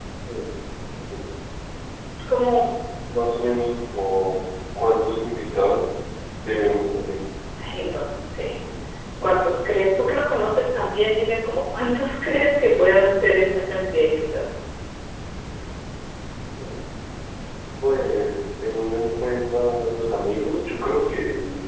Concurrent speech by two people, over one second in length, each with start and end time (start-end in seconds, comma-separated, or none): none